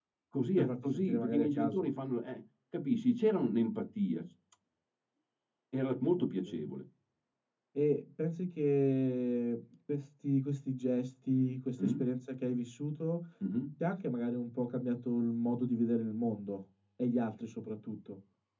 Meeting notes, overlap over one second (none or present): present